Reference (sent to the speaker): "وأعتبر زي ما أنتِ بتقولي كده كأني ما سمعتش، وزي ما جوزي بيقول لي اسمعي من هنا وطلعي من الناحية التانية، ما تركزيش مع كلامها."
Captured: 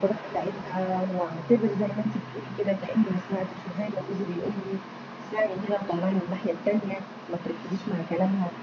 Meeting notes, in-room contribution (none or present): none